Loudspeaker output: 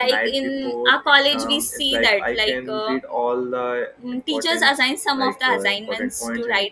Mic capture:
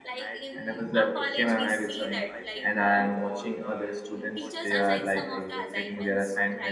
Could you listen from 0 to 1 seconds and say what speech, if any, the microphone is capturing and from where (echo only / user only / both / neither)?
both